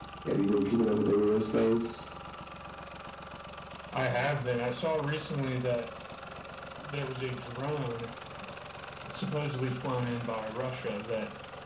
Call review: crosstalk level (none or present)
none